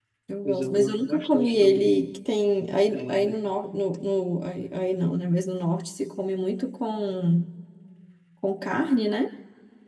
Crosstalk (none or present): present